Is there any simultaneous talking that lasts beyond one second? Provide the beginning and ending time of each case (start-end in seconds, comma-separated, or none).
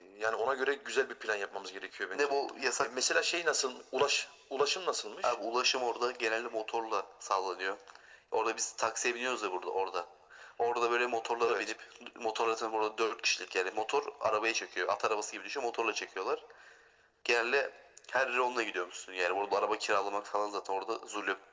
none